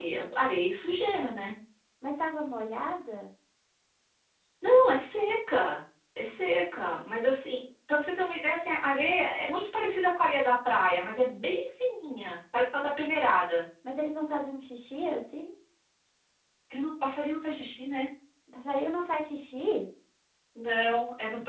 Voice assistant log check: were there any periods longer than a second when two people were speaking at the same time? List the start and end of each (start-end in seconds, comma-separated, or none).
none